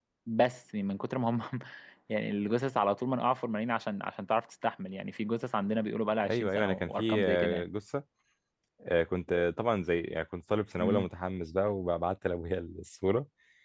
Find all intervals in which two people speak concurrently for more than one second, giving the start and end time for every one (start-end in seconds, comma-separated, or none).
6.3-7.7